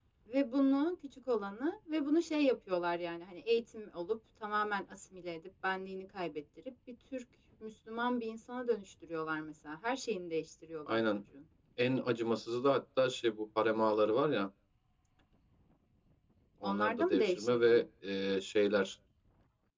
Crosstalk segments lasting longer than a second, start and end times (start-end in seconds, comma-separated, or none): 16.6-17.8